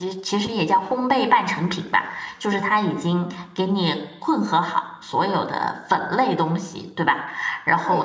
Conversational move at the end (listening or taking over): listening